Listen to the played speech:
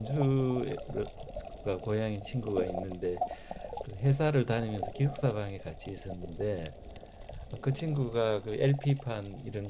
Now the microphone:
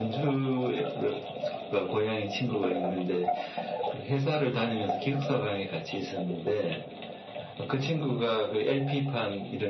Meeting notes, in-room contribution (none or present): none